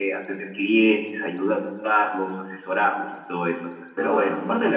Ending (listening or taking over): taking over